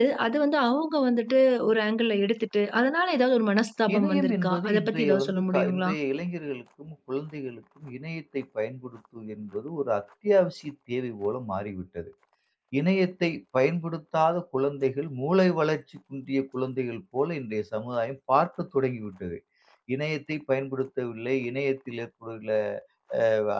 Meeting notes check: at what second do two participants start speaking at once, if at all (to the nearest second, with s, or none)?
4 s